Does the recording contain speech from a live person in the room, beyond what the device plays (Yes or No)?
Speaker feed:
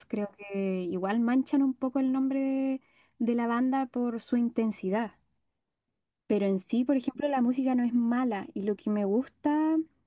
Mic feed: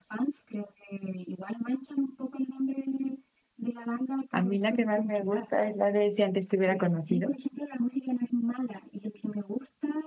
Yes